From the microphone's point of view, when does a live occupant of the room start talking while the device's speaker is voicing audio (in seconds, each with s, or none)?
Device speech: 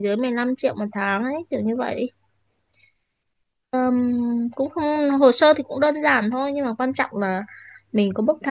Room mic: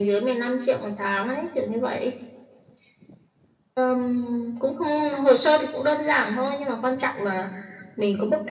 none